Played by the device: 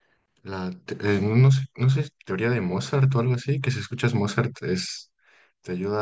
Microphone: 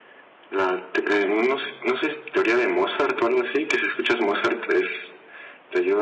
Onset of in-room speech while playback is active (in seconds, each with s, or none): none